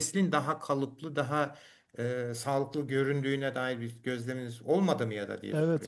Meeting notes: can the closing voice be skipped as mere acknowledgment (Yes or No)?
No